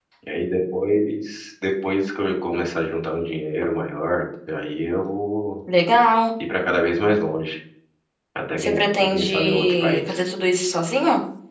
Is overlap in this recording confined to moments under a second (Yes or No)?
No